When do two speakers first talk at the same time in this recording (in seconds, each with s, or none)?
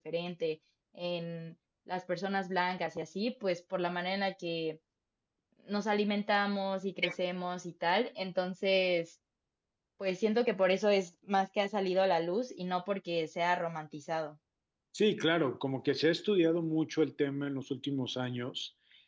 none